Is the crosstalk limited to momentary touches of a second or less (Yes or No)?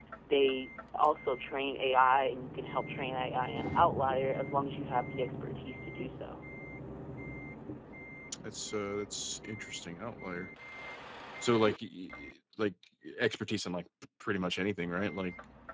Yes